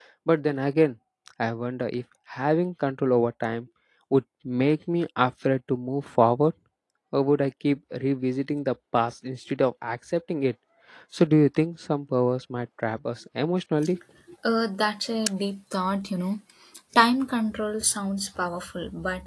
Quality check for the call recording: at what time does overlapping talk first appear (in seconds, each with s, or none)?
none